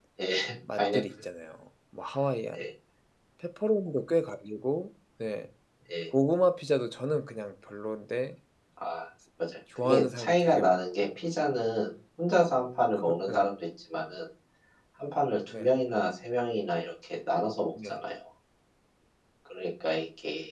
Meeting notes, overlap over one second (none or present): present